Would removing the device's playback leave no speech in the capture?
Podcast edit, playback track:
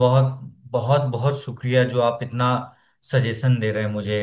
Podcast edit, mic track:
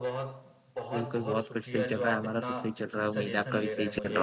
No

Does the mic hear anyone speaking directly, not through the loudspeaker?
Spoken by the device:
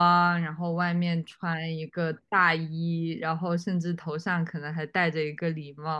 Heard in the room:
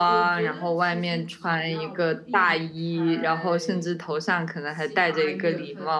Yes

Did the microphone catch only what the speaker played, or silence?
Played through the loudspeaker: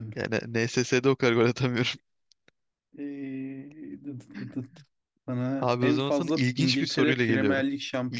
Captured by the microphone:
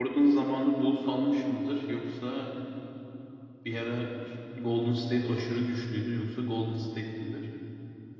No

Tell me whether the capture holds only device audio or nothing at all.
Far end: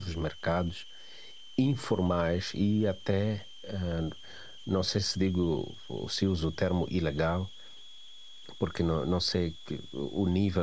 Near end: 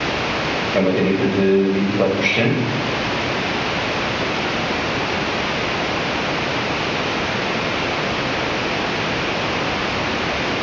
No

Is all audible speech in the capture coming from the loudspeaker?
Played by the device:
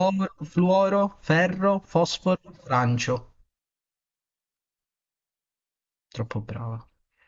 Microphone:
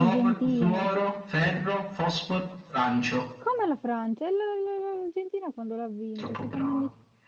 No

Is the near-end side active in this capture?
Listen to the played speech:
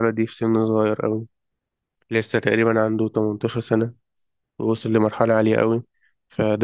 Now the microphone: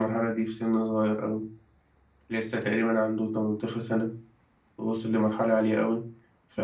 No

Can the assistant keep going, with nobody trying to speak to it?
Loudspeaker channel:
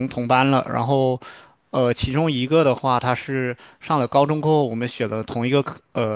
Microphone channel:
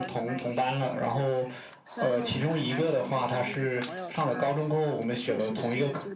No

